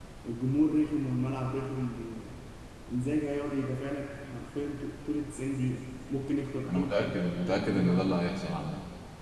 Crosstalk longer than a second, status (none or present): present